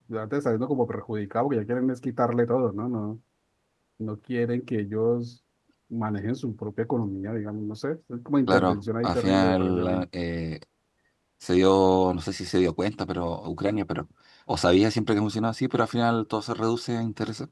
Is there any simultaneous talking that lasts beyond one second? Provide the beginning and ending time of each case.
8.5-10.0

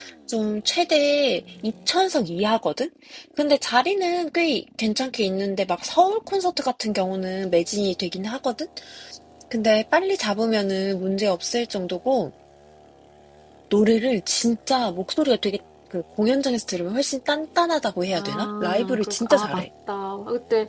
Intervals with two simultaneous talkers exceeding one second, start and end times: 18.1-19.6

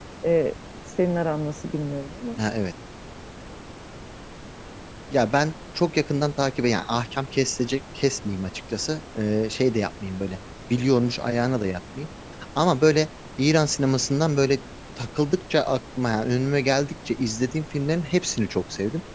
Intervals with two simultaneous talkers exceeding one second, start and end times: none

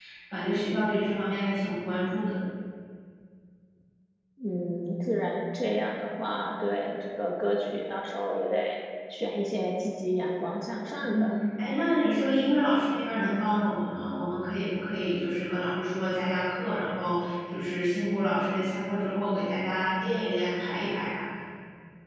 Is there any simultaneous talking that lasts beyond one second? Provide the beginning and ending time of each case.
none

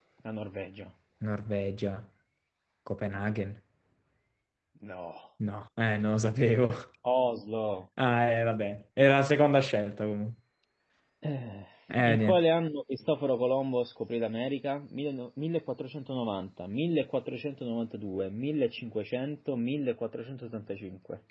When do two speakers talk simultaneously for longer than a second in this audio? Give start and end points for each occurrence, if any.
none

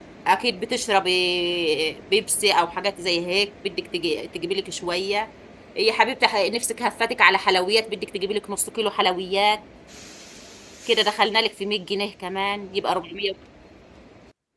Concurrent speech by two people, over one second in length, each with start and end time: none

